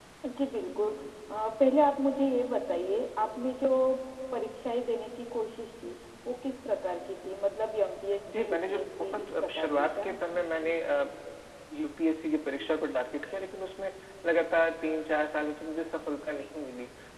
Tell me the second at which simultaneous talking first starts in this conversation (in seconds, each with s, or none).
8.3 s